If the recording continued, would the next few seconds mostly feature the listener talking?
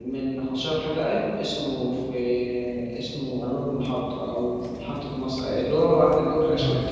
Yes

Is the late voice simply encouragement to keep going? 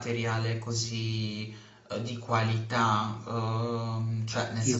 Yes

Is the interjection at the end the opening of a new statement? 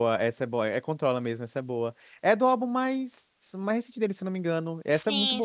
Yes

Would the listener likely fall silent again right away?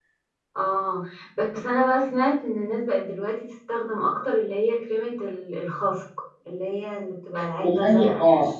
No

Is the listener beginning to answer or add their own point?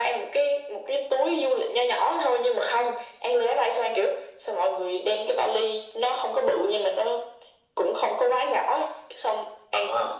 No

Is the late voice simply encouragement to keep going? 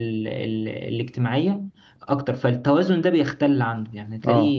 Yes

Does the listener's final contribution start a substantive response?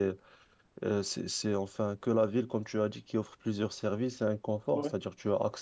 No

